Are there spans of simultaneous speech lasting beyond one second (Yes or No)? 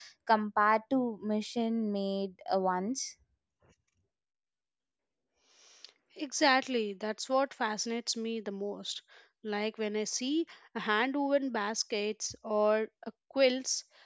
No